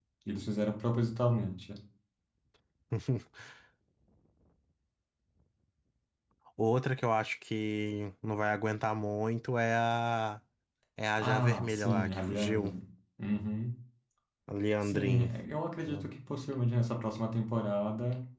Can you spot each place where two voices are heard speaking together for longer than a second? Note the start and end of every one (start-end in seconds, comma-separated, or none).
11.2-12.7